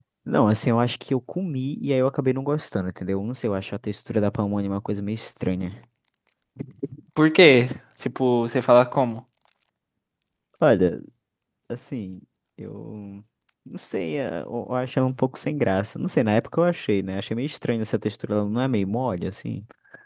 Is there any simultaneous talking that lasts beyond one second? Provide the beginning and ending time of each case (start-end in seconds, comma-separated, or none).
none